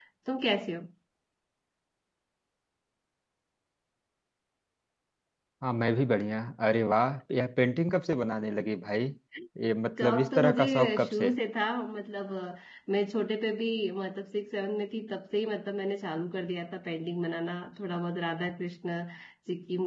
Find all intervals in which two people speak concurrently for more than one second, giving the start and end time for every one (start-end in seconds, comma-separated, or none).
10.0-11.3